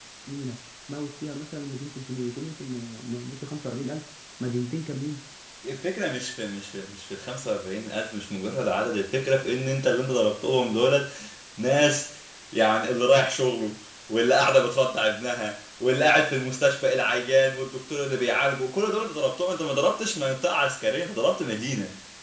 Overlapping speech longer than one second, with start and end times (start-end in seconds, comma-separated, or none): none